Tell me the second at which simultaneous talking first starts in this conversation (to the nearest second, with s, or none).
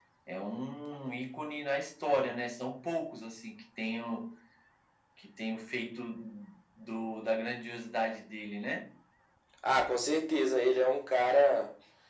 none